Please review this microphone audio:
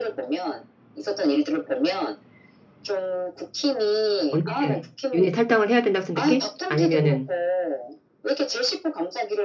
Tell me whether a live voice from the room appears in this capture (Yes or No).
Yes